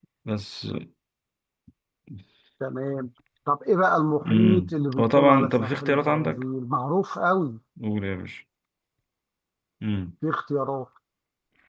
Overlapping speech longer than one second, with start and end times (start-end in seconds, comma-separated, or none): 4.2-6.4